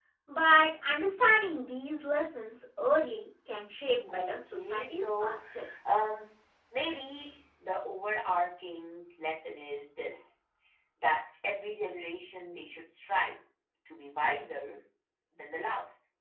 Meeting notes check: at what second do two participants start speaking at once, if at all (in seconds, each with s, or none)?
4.1 s